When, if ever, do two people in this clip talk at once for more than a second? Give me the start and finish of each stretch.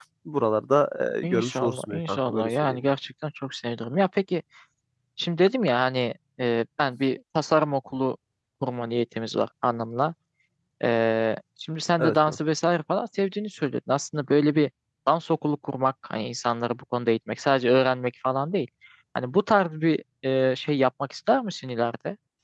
1.2-2.9

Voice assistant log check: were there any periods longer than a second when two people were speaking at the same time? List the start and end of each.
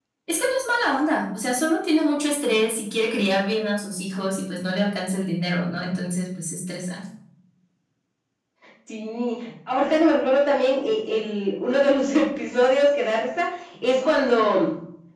none

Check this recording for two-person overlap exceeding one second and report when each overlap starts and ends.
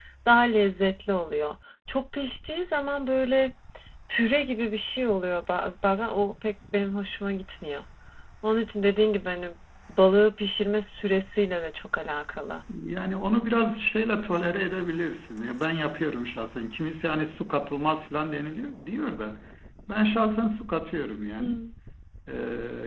none

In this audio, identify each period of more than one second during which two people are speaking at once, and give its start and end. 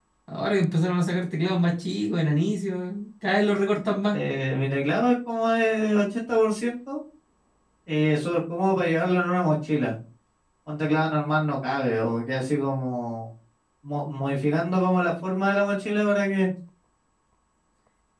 none

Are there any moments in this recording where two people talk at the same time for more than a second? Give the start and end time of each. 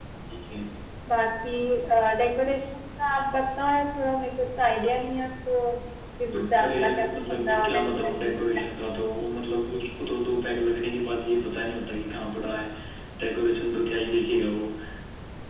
6.3-8.7

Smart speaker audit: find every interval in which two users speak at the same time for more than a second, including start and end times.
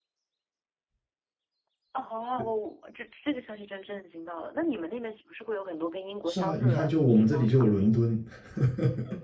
6.3-8.0

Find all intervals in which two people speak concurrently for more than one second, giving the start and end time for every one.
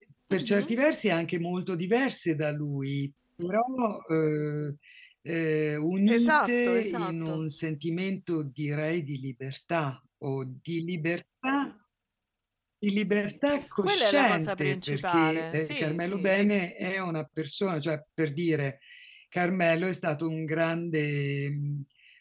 6.1-7.4, 13.8-16.5

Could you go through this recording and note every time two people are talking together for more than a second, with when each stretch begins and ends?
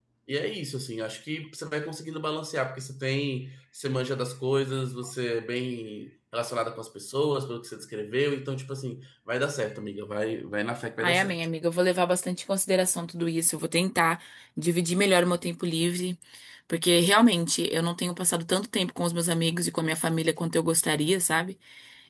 none

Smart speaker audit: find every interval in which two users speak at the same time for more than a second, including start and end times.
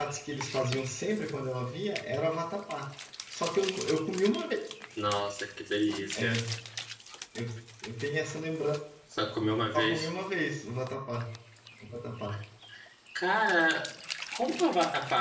none

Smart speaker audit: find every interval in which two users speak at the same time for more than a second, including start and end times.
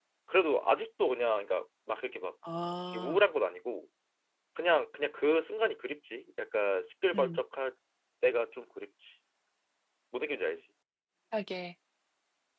none

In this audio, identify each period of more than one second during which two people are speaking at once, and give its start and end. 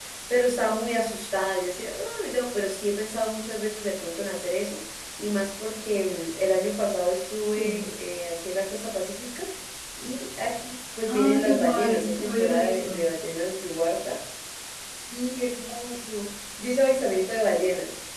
11.1-13.0

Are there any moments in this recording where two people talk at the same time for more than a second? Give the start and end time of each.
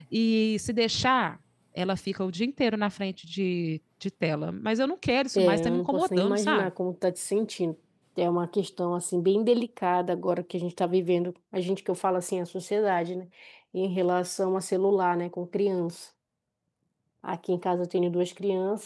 5.4-6.7

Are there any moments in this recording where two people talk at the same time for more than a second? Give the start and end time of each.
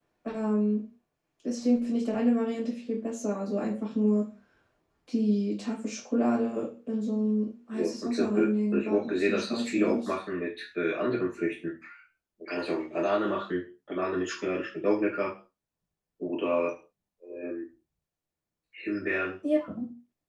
7.7-10.1

